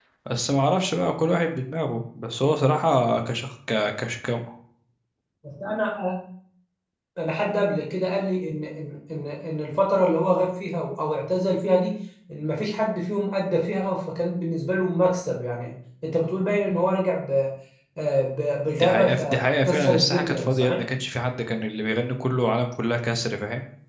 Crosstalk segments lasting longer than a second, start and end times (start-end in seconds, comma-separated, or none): 18.8-20.8